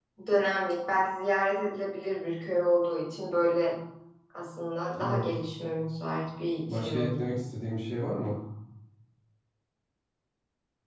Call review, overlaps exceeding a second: none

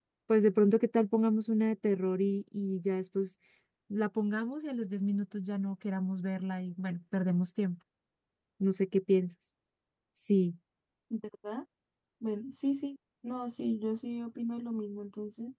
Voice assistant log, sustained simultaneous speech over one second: none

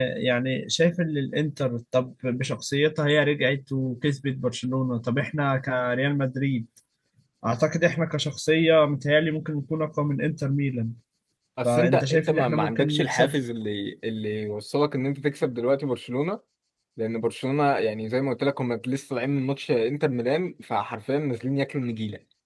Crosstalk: present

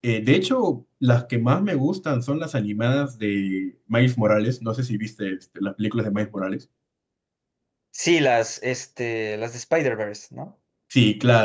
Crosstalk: none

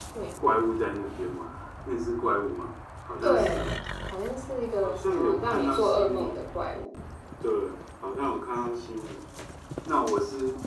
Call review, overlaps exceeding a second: present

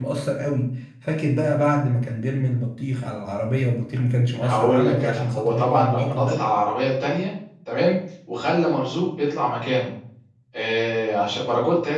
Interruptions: present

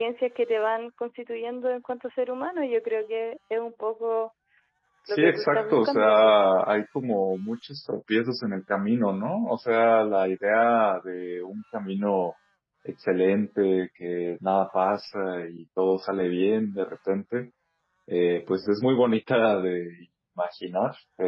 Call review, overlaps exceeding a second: present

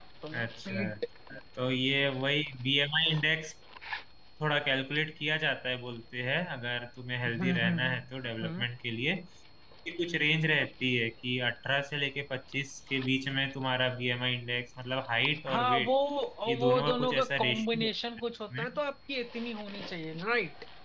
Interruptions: present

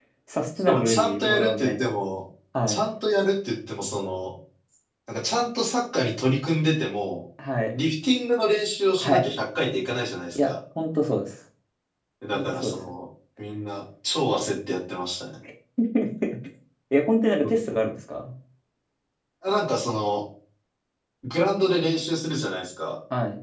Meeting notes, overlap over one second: present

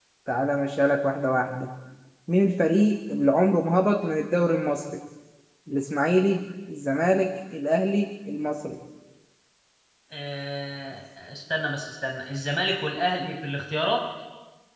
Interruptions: none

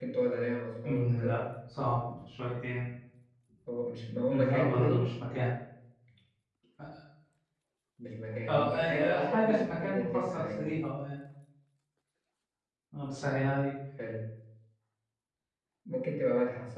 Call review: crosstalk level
present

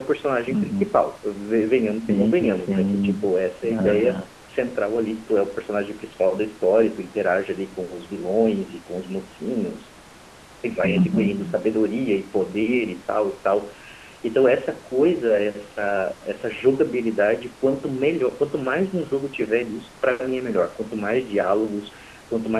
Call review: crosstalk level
present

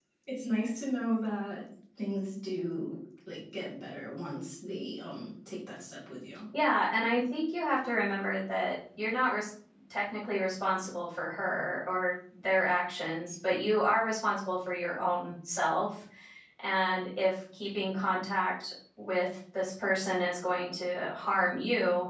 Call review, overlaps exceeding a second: none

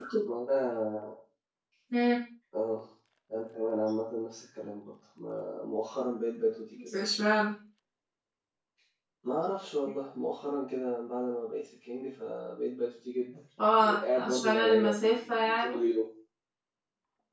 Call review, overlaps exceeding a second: present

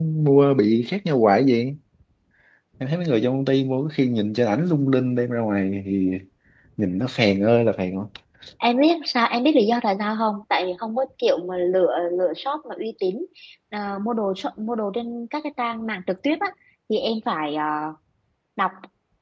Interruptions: none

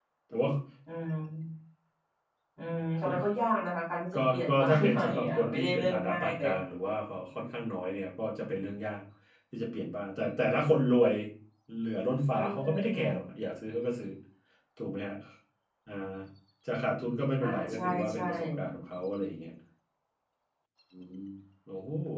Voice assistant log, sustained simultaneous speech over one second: present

